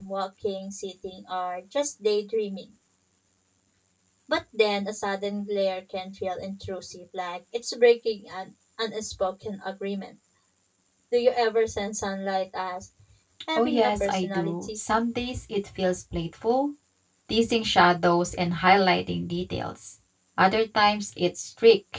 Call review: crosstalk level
present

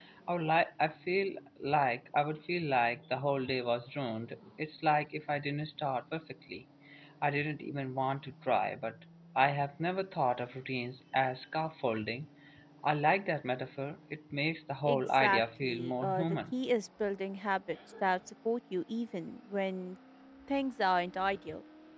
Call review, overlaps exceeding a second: present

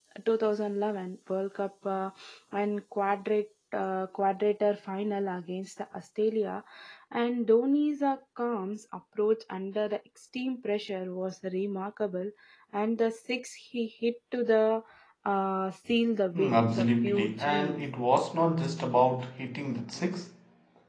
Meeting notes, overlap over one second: present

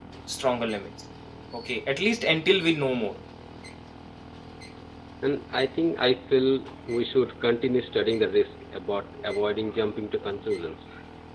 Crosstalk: none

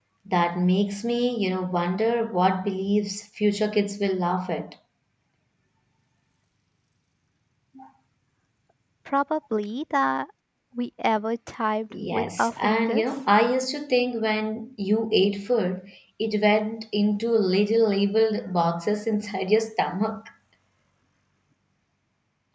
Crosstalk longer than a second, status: present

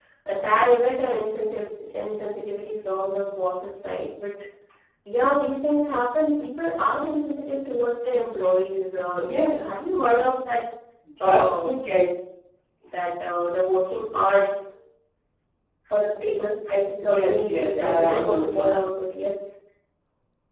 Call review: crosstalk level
present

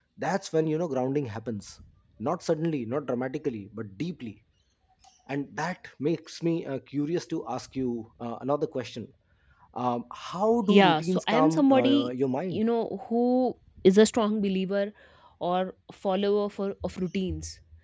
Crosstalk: present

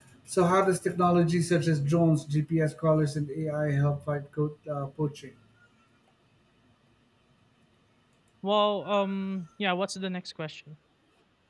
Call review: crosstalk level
none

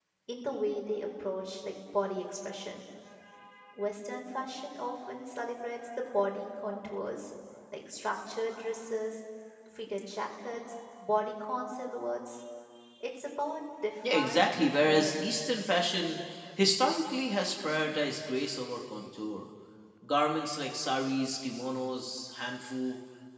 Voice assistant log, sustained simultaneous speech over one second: present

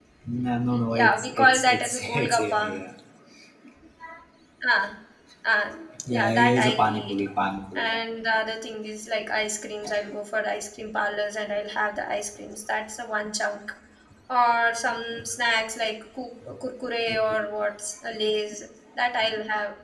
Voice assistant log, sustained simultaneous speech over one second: present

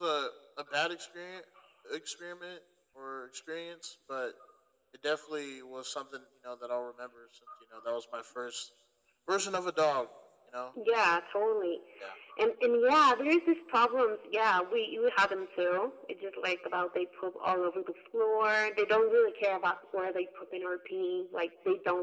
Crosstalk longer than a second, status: none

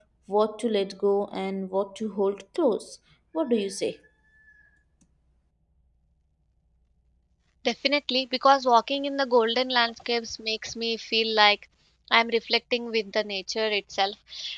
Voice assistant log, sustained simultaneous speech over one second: none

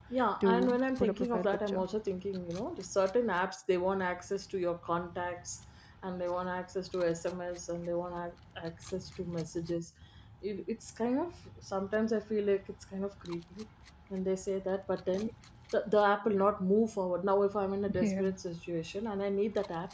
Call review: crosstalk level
present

